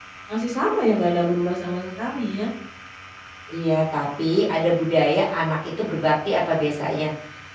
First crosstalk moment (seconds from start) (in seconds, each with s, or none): none